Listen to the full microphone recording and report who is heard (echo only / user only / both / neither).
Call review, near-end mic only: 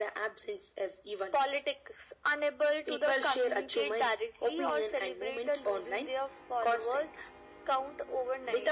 echo only